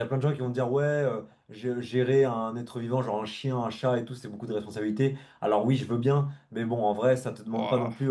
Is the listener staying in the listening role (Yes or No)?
Yes